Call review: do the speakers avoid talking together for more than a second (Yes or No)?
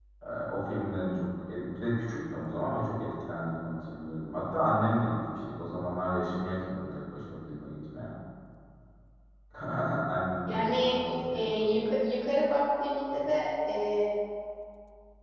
No